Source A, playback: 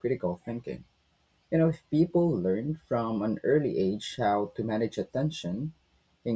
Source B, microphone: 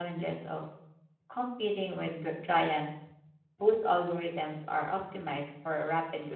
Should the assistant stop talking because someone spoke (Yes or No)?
Yes